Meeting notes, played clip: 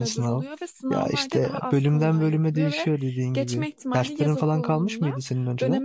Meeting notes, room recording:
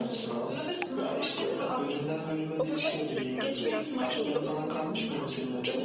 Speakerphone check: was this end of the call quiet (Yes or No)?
No